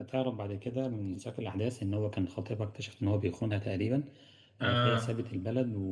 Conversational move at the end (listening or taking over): listening